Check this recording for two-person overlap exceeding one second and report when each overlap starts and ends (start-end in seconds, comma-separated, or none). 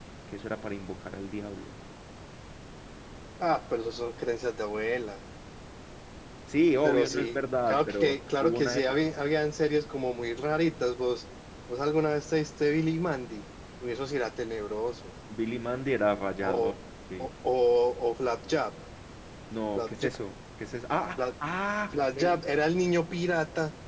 6.8-8.9